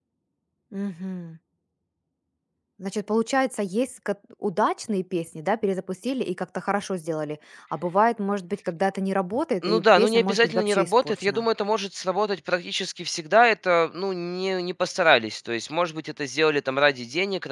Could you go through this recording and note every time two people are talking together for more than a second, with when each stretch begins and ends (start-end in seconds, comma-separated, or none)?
9.6-11.4